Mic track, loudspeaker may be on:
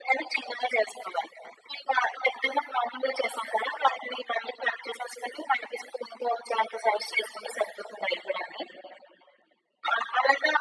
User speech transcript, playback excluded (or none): none